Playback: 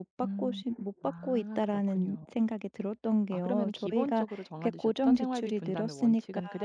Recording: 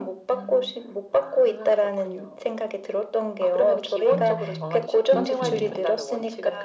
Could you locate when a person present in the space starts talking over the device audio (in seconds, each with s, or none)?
4.1 s